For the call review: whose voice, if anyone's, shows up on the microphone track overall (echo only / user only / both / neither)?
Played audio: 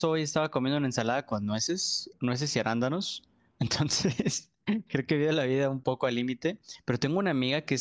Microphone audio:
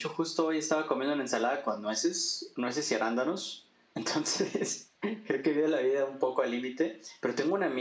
echo only